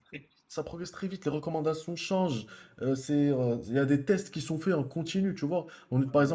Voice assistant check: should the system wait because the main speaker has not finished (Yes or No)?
Yes